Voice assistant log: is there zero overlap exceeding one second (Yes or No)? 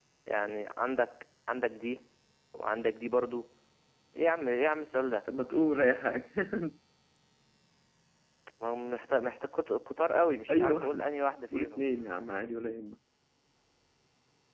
Yes